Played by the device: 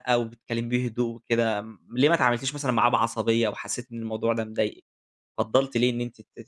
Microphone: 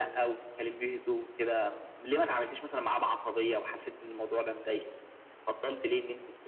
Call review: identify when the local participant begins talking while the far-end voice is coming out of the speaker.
none

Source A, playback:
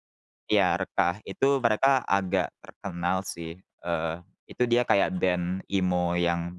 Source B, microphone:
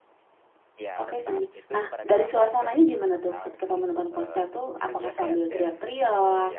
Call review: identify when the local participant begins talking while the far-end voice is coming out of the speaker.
1.0 s

